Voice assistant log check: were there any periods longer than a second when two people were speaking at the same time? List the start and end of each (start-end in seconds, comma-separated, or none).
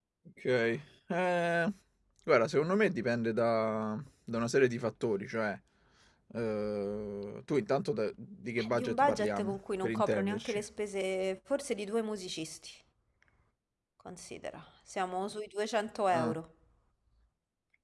8.6-10.6